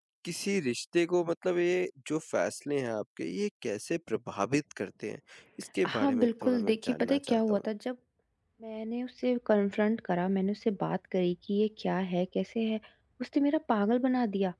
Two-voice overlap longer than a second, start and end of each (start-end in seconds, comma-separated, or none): 5.8-7.6